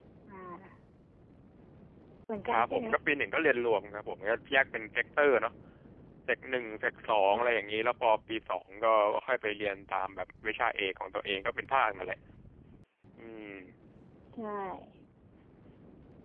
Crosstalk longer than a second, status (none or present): none